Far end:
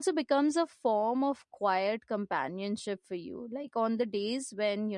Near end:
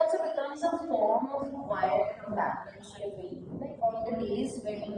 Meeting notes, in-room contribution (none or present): none